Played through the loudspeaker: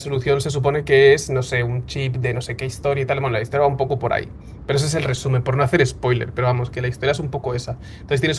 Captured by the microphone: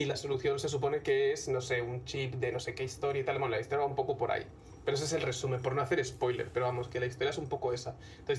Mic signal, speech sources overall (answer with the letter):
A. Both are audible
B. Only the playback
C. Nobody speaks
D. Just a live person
B